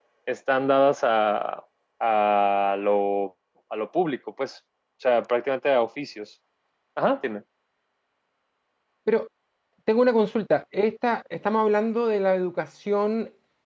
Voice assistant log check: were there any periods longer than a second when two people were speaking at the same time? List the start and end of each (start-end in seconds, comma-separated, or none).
none